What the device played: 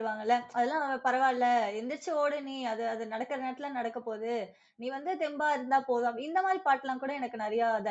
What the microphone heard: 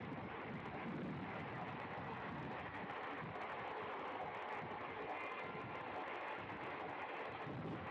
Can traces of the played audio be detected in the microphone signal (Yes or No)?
No